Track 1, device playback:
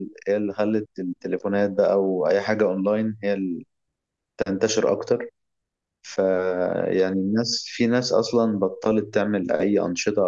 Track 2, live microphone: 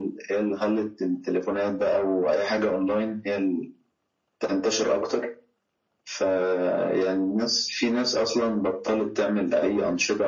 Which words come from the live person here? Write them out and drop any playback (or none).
none